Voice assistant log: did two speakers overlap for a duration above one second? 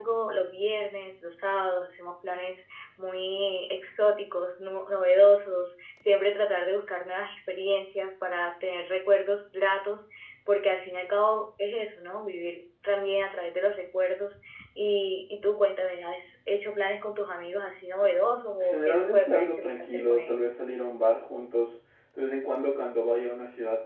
Yes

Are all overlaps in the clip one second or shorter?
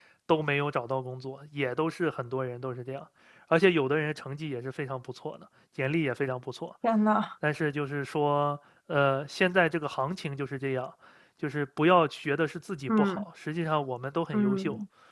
Yes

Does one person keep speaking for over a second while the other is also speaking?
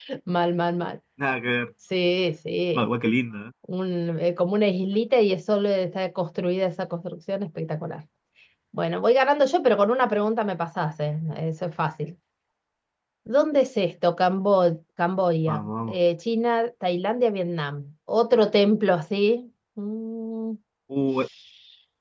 No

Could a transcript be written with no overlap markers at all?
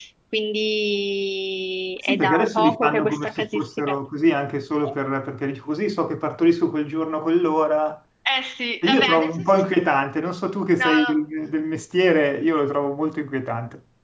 No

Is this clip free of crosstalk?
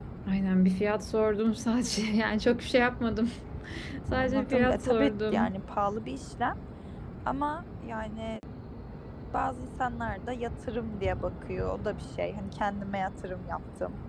No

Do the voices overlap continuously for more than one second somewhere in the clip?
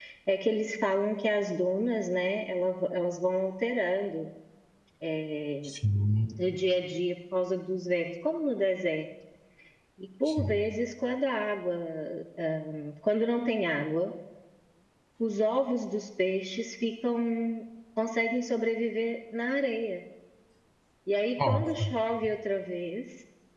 No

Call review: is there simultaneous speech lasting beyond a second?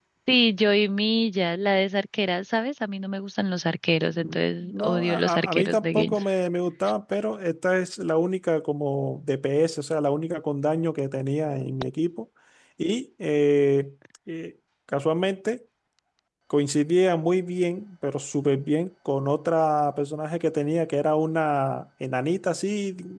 Yes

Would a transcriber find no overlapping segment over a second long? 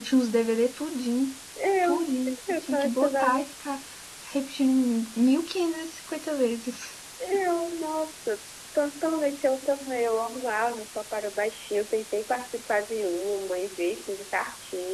No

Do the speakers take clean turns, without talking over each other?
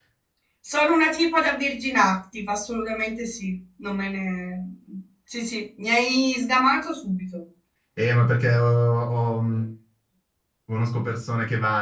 Yes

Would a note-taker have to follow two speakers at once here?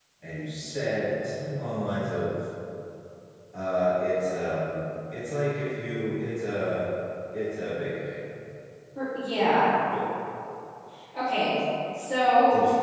No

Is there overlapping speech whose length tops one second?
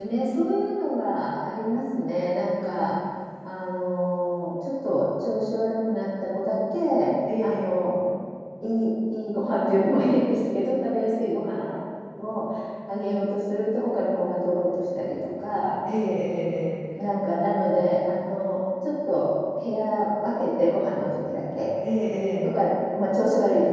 No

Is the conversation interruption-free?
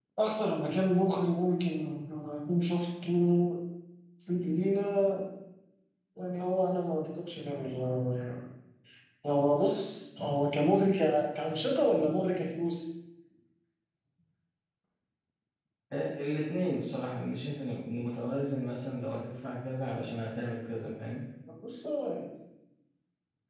Yes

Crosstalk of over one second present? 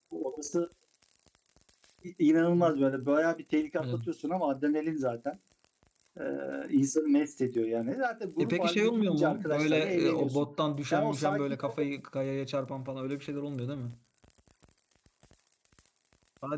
Yes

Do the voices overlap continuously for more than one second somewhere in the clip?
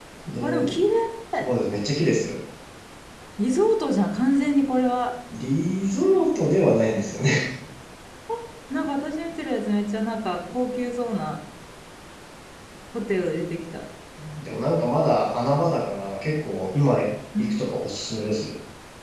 No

